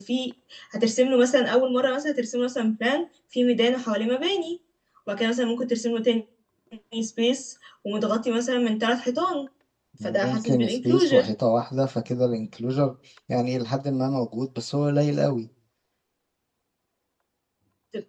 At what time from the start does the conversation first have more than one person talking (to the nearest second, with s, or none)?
10 s